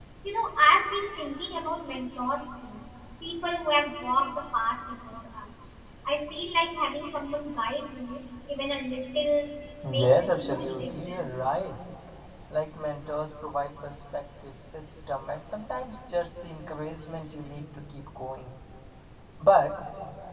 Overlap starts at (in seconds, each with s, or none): 9.8 s